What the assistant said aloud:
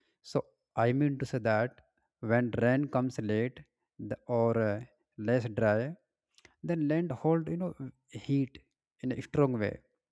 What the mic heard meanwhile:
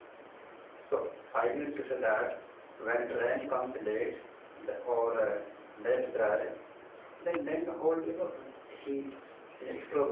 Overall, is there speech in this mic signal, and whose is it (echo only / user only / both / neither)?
echo only